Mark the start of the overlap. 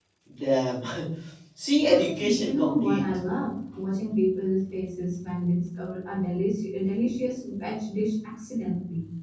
1.8 s

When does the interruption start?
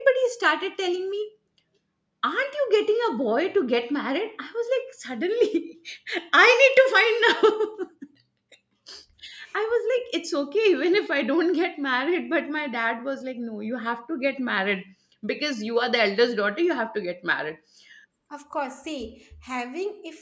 none

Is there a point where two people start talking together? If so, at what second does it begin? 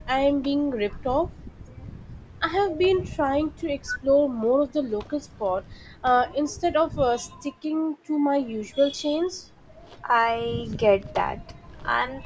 none

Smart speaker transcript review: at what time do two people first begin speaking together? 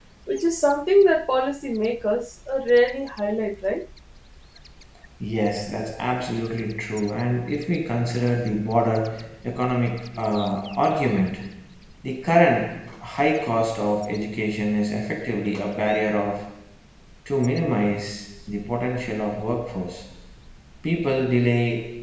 none

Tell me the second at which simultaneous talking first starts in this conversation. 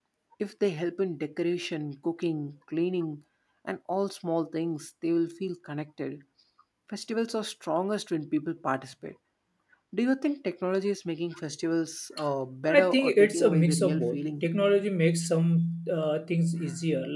12.7 s

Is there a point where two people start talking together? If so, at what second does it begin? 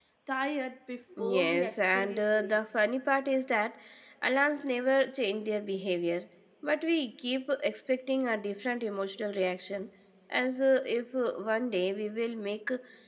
1.3 s

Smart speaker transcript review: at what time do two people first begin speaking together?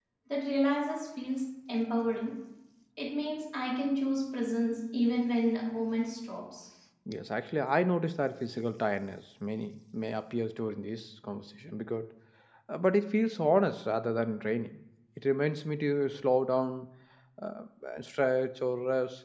none

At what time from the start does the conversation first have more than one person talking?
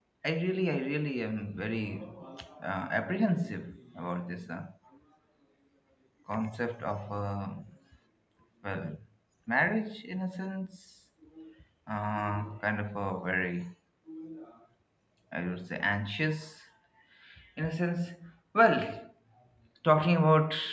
none

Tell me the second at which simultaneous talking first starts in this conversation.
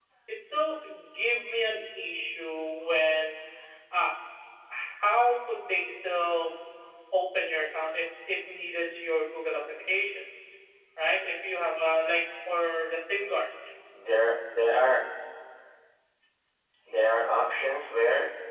none

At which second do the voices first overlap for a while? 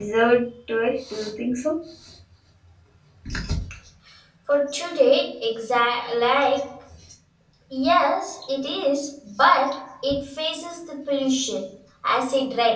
none

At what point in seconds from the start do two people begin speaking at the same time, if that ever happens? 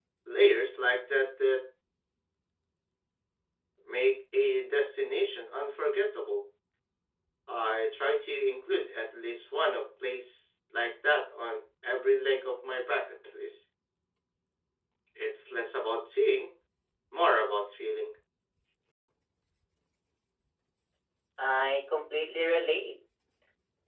none

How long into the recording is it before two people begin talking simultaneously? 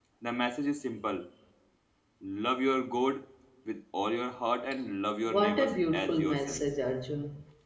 5.3 s

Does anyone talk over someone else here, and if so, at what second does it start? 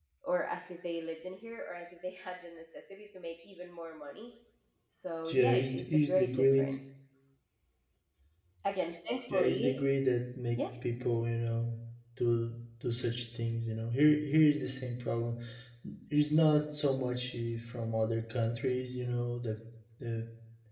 5.3 s

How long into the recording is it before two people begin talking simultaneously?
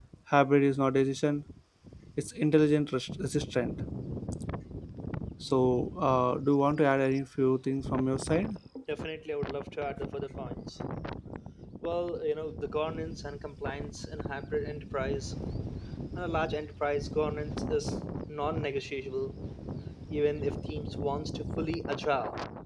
none

